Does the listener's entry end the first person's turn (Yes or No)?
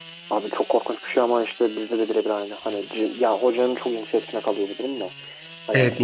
Yes